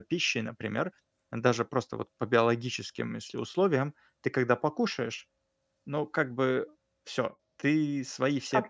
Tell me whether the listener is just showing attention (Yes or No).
No